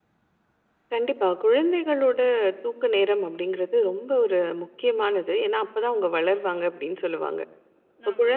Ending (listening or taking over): listening